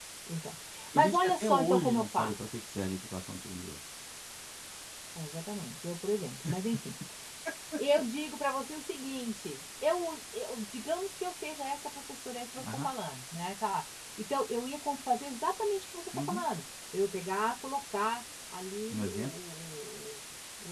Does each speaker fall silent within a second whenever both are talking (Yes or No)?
No